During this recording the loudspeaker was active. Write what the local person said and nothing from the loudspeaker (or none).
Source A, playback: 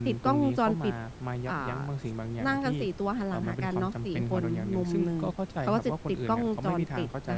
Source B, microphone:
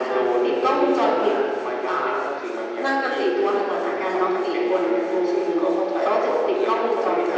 none